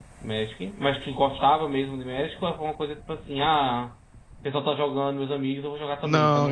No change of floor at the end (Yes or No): No